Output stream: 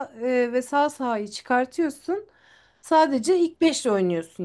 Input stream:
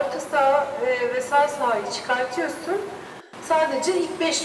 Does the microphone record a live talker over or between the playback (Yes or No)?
No